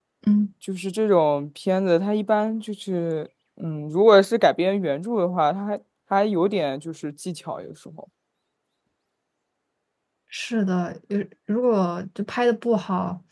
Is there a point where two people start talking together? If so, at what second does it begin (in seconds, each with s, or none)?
none